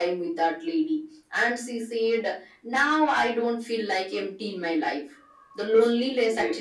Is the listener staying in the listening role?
Yes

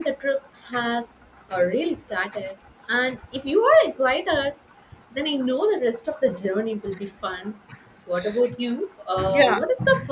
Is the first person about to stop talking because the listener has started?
No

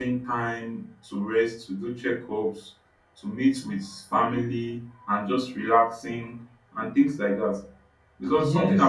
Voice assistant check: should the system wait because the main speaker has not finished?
No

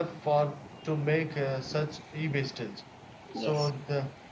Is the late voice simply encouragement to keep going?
Yes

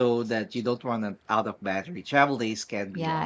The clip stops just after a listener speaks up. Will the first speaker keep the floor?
No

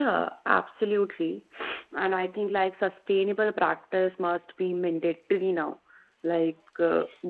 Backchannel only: Yes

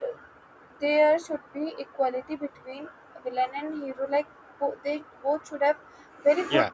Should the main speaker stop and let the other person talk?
No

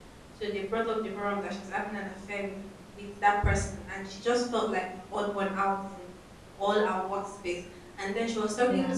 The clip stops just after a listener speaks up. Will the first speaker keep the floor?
Yes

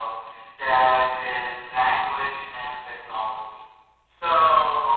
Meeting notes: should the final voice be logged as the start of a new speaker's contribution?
No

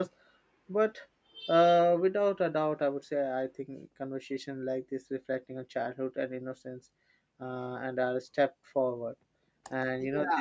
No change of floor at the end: No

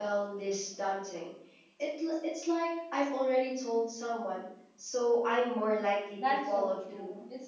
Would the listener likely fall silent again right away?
No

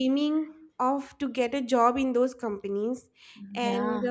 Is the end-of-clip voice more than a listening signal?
No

